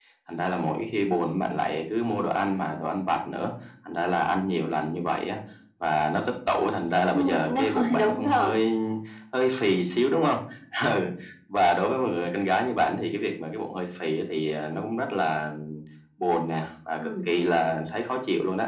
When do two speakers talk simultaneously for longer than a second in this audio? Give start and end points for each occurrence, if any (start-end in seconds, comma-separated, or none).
7.1-8.6